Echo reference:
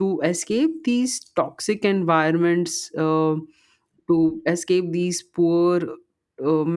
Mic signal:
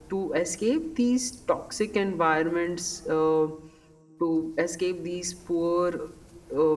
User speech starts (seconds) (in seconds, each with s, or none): none